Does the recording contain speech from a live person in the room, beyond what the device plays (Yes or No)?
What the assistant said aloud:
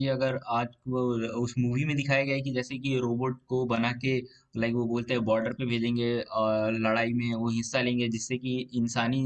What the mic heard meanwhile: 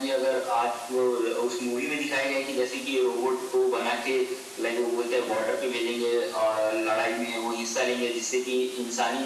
No